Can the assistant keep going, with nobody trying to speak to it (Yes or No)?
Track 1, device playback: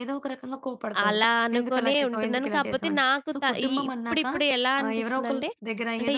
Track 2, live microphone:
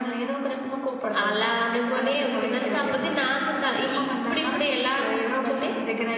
Yes